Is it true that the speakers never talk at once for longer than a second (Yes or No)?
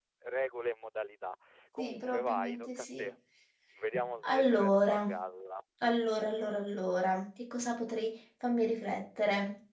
No